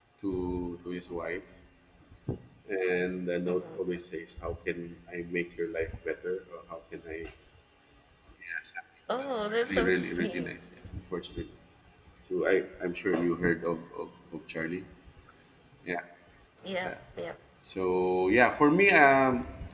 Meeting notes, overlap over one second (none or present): present